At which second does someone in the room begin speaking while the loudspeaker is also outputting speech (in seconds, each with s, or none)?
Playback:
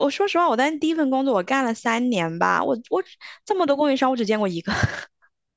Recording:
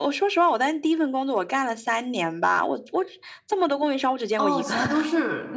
4.4 s